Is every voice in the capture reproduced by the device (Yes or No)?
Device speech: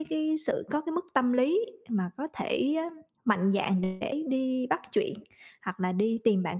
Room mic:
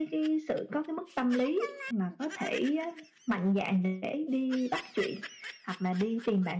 Yes